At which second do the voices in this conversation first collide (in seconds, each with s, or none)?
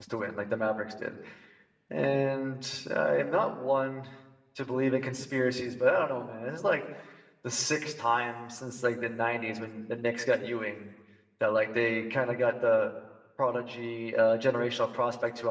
none